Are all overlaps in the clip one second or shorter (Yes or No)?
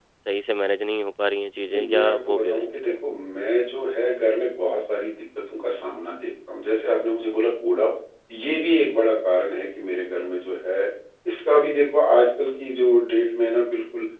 No